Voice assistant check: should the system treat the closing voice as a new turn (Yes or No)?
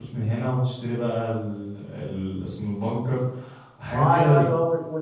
Yes